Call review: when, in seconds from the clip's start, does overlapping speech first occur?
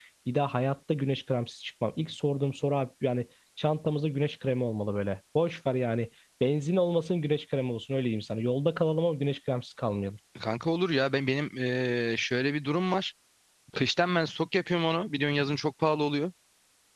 none

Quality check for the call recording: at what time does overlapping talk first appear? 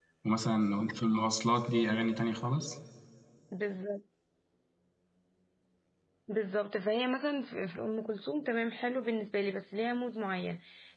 none

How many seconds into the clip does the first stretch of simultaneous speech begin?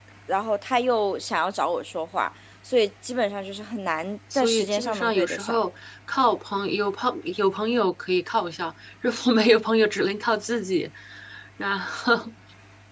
4.3 s

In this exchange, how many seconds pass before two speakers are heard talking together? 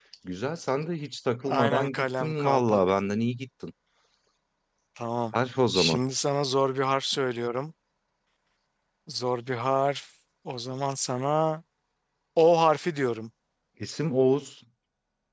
1.4 s

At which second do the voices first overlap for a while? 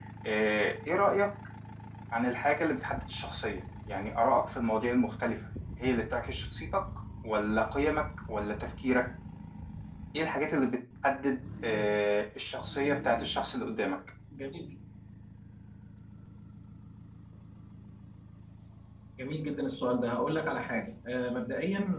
none

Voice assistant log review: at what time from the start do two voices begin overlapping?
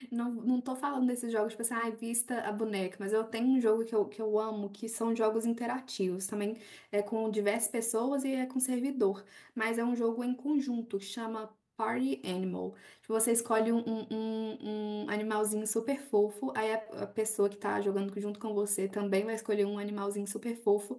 none

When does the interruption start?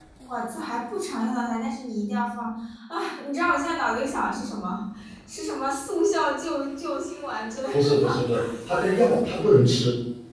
7.7 s

